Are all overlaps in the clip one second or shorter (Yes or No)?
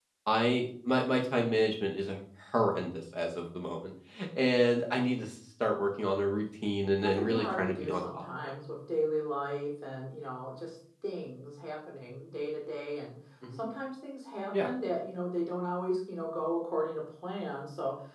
No